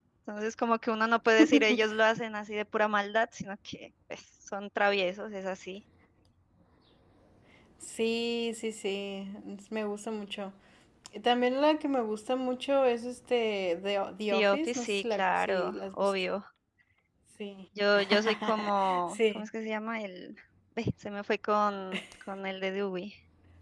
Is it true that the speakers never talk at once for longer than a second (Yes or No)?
No